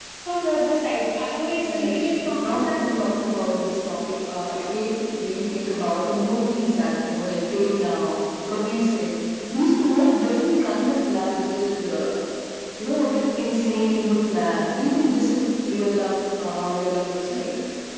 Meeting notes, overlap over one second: present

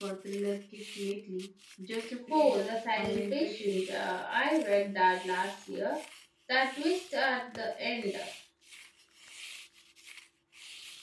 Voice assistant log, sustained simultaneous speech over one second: present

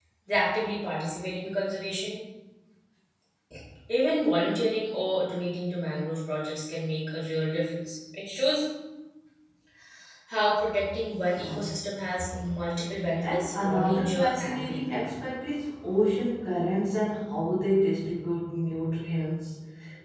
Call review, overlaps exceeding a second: present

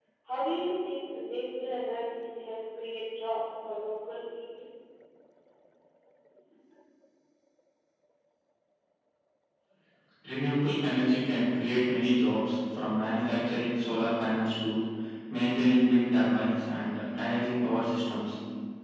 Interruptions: none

